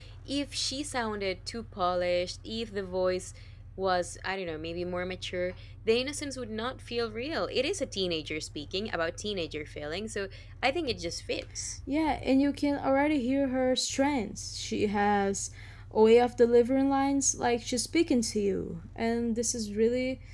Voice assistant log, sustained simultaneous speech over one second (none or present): none